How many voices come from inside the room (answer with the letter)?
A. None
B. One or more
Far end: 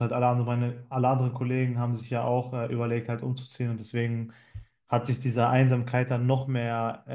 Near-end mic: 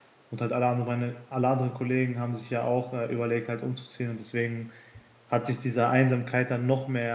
A